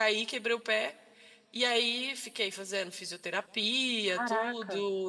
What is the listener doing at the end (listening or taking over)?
listening